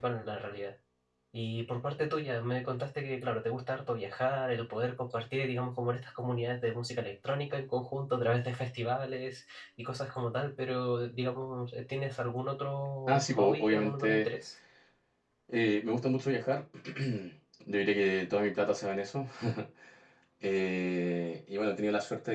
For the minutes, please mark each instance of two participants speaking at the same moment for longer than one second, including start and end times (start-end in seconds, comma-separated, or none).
13.1-14.3